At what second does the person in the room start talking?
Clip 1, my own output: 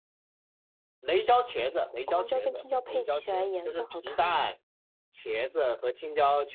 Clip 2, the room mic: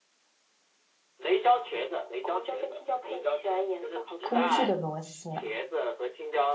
4.2 s

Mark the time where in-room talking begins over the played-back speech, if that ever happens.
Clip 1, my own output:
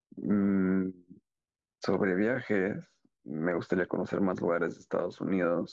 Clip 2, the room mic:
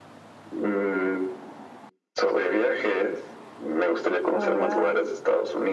4.3 s

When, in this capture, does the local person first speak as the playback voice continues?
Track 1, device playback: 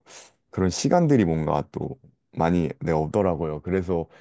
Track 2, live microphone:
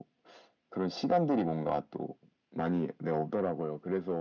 none

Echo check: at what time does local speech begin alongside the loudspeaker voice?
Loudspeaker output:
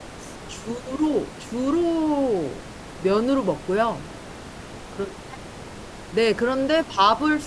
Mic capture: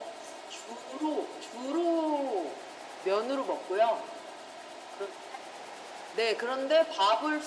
none

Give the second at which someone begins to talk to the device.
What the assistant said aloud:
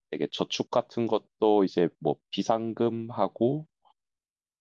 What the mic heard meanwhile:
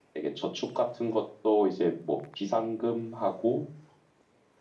none

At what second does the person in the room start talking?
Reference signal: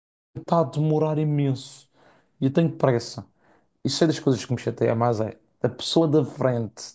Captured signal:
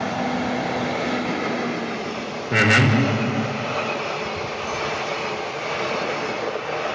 2.5 s

